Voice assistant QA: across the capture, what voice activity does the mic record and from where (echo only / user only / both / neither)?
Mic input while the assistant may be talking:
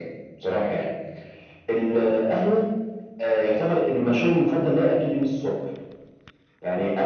echo only